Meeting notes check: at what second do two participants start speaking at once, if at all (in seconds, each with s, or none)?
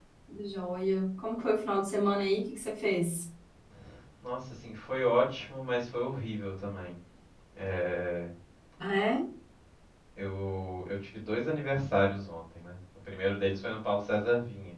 none